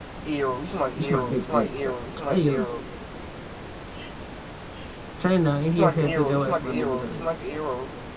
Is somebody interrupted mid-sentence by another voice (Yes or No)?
Yes